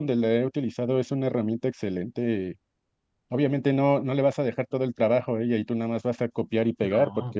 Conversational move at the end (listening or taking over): listening